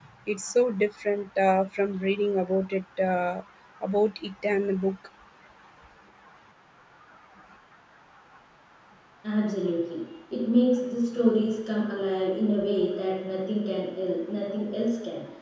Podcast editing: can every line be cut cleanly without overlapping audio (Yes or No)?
Yes